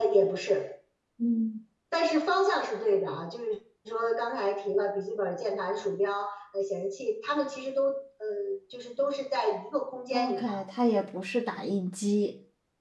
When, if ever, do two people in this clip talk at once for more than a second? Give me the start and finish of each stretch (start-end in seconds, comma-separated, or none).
none